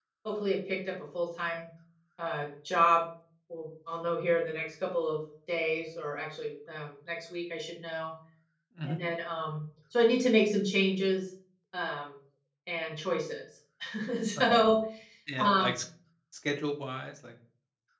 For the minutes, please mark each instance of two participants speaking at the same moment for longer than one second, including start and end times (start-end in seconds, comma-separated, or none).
none